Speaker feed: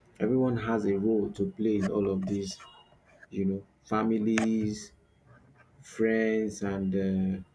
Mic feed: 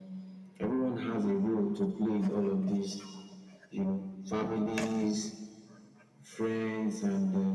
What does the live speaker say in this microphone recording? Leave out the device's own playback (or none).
none